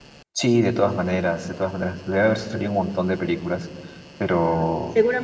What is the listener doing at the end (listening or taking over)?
taking over